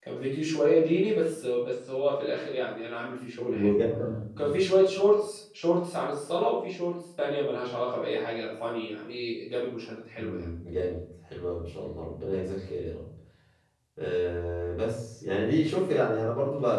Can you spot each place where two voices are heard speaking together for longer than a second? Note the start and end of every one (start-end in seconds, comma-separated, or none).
none